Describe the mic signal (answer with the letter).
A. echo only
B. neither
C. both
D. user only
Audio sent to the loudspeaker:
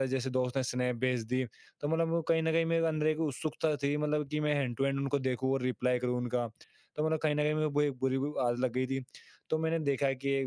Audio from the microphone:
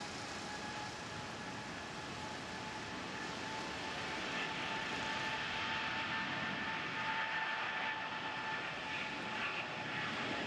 B